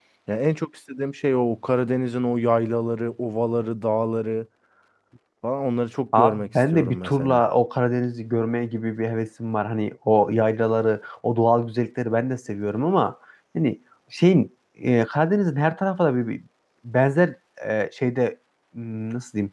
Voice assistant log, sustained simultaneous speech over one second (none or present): present